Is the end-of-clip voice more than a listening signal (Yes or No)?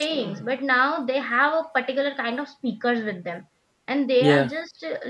No